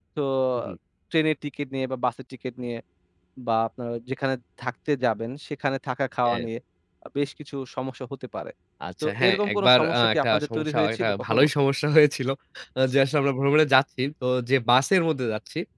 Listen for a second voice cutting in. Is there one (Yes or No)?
Yes